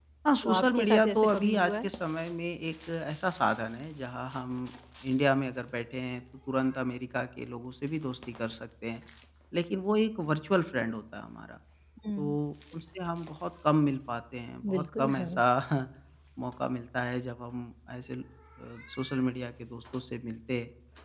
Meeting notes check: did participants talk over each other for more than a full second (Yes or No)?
Yes